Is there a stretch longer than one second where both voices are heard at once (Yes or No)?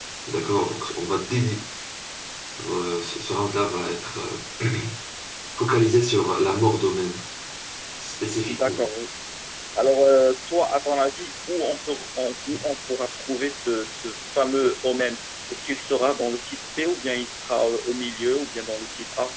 No